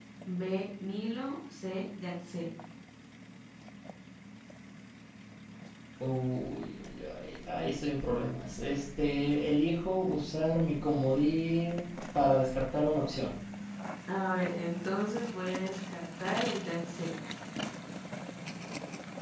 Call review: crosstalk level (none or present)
none